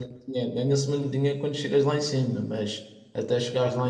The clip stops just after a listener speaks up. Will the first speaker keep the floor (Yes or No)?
Yes